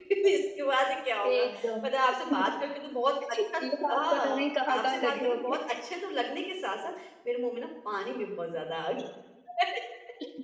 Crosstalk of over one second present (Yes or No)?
Yes